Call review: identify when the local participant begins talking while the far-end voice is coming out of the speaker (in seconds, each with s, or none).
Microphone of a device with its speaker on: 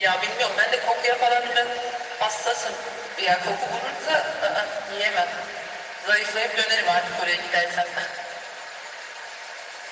none